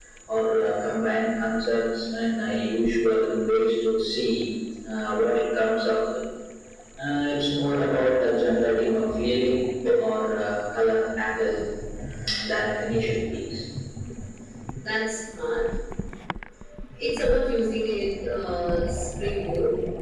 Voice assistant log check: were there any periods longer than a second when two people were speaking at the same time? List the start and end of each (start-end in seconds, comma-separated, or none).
none